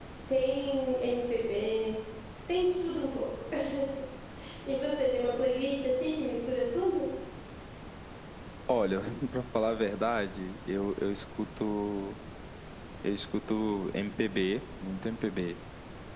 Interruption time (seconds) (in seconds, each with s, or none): none